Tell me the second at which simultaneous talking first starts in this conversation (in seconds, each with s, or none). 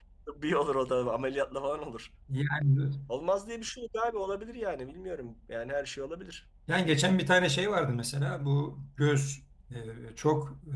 none